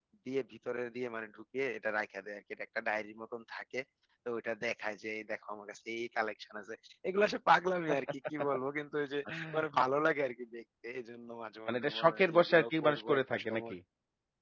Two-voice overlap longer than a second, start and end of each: 11.7-13.7

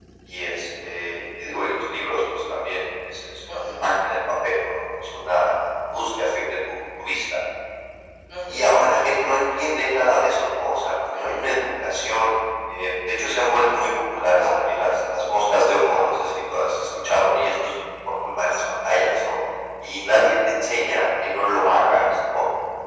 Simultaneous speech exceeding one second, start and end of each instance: none

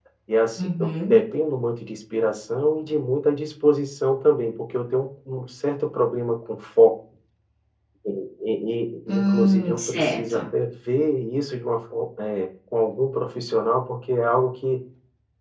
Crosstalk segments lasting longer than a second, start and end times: 9.1-10.4

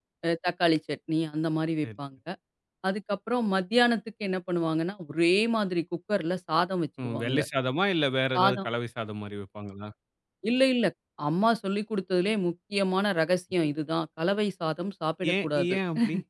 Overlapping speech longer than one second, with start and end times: none

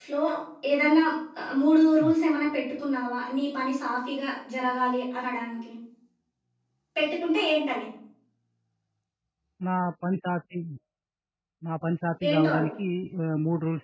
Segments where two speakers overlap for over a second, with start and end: none

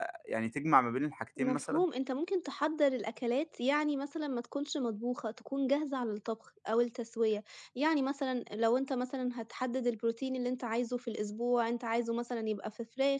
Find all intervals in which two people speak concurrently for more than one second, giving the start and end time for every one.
none

